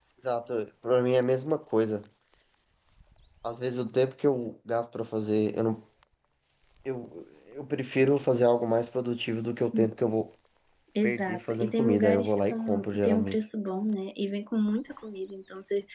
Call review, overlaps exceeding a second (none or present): present